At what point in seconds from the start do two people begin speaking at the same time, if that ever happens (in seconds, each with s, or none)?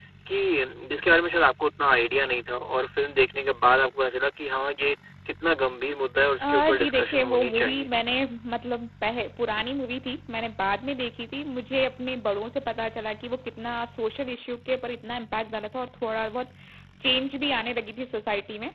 6.4 s